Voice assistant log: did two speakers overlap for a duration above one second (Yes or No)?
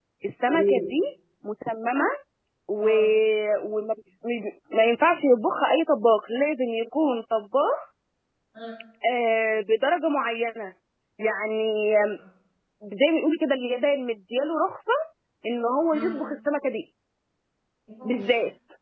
No